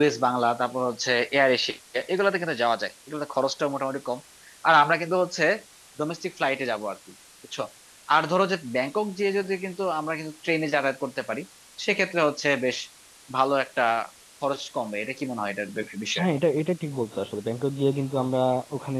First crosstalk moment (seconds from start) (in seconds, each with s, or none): none